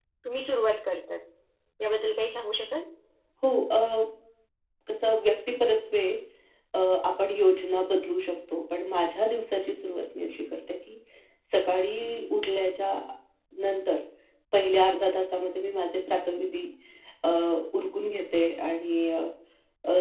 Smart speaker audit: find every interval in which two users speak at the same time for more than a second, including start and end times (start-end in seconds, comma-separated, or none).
none